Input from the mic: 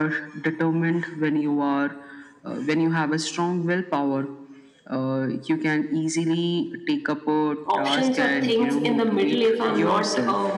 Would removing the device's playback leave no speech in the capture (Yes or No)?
No